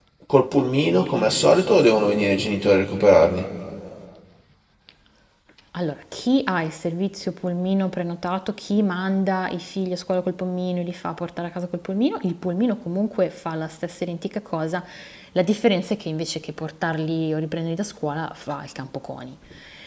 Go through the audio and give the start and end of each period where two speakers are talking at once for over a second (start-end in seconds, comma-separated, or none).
none